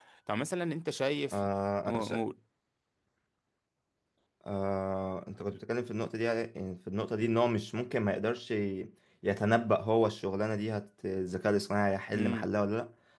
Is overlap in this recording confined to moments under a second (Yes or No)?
Yes